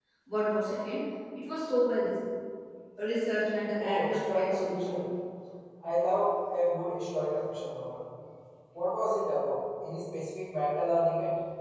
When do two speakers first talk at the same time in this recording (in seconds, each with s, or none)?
3.8 s